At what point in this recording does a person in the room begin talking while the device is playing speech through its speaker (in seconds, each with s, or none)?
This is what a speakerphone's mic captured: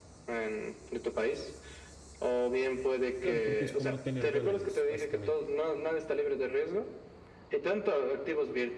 3.2 s